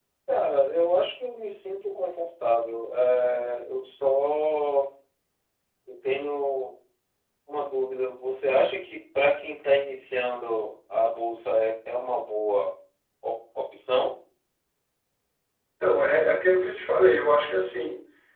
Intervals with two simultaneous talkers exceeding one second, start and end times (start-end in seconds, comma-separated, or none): none